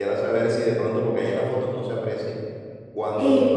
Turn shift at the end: No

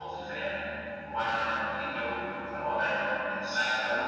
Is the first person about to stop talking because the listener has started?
No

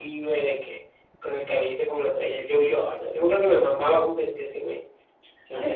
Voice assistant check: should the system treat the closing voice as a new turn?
Yes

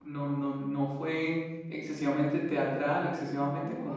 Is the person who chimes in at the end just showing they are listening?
Yes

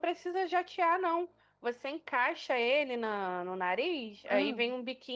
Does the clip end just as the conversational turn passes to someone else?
No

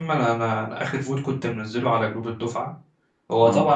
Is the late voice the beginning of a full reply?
No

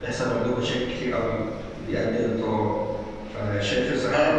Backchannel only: Yes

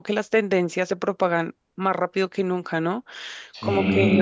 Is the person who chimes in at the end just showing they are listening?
Yes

